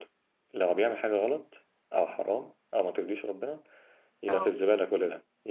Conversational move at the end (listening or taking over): listening